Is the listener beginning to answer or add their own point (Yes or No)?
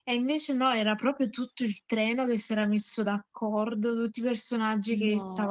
No